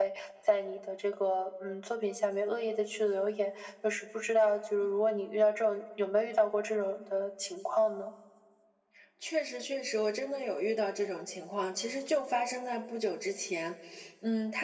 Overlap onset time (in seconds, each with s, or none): none